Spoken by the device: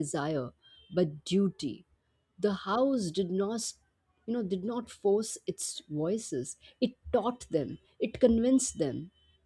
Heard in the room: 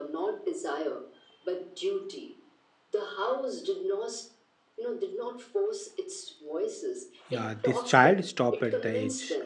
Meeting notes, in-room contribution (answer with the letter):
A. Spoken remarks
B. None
A